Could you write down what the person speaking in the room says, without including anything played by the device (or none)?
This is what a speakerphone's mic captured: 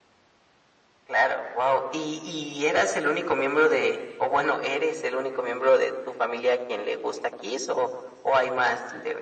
none